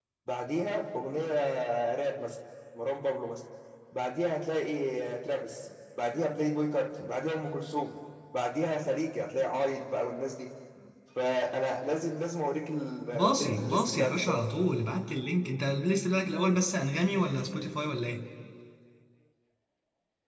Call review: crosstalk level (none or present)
present